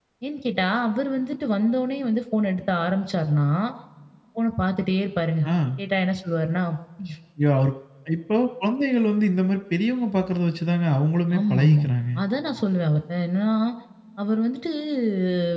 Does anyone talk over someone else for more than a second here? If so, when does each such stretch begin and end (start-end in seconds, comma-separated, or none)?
none